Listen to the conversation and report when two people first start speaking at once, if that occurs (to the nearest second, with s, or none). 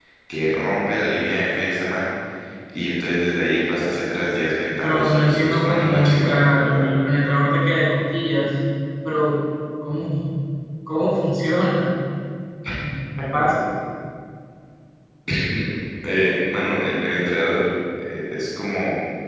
5 s